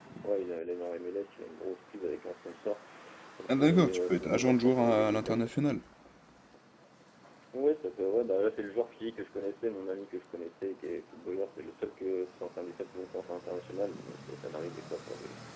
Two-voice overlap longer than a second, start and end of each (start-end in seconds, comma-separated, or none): 3.5-5.5